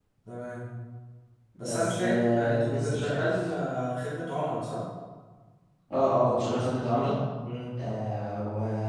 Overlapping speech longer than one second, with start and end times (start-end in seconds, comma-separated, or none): 1.6-3.5